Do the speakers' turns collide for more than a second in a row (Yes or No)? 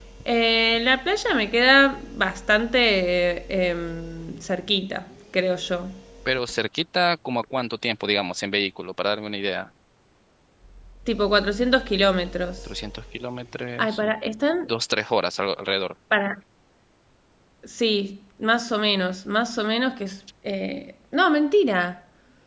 No